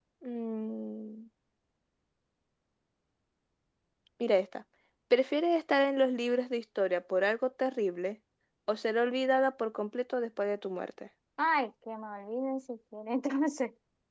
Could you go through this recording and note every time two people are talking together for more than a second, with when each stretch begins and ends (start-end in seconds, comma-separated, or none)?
none